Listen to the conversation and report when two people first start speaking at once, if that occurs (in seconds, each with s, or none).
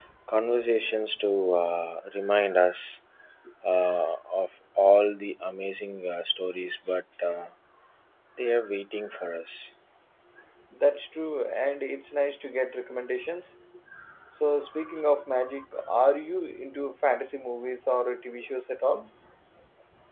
none